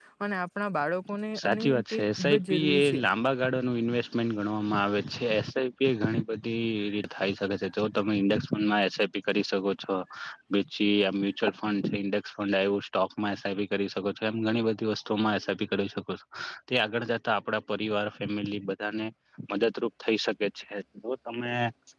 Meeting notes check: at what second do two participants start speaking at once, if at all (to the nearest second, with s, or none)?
1 s